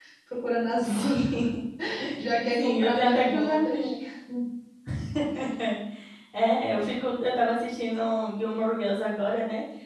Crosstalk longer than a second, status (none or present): present